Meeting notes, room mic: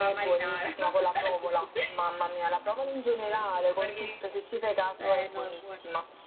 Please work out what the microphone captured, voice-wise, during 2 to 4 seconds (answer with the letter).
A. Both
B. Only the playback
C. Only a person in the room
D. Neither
B